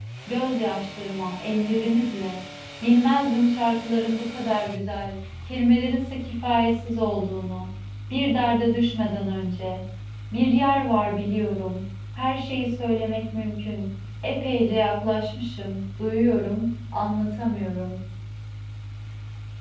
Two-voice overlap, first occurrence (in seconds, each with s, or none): none